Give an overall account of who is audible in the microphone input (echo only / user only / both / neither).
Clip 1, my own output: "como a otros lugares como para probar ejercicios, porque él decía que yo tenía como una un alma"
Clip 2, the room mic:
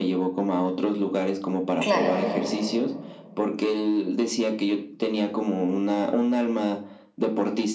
both